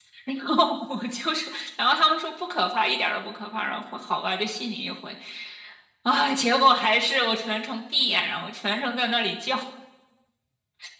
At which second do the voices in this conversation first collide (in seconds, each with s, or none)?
none